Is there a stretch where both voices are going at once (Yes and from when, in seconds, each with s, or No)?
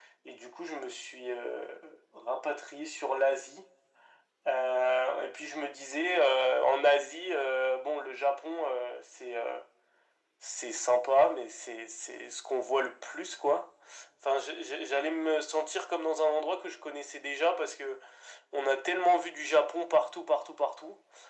No